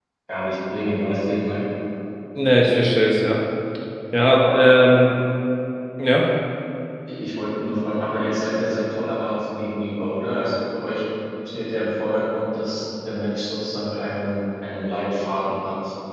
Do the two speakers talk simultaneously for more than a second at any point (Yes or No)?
No